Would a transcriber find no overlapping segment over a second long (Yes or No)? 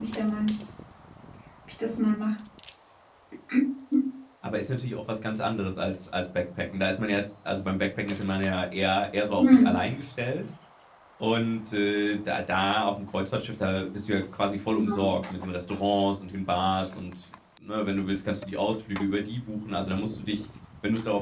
Yes